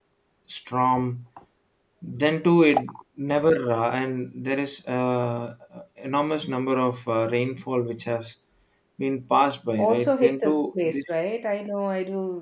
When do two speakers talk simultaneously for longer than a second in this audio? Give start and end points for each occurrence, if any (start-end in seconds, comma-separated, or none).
9.8-11.1